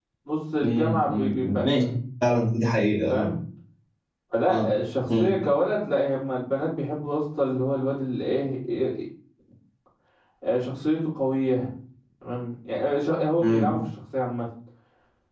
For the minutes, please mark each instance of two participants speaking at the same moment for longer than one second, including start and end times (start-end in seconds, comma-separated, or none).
0.6-1.8